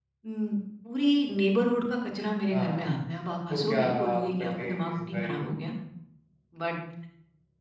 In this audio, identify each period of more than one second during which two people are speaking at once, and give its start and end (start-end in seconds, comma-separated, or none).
3.5-5.5